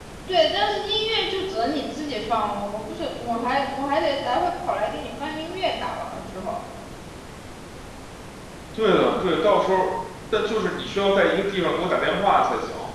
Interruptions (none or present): none